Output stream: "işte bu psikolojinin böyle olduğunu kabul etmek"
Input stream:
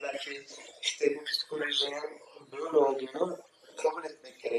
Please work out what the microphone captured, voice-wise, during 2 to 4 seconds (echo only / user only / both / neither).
echo only